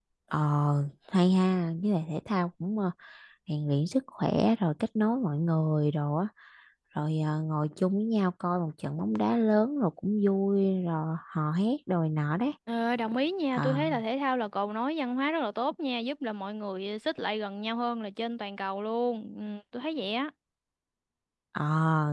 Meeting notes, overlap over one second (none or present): none